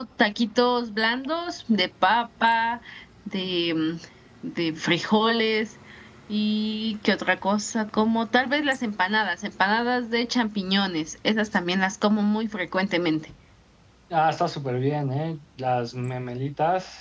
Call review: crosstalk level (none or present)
none